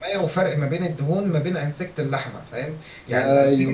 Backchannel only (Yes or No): Yes